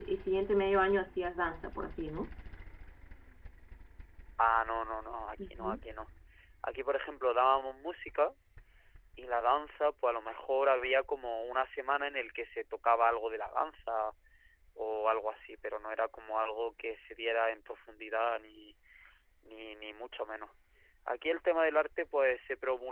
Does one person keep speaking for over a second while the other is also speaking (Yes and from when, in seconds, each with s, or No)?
No